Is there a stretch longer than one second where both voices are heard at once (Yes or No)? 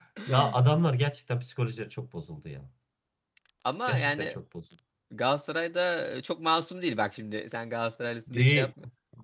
No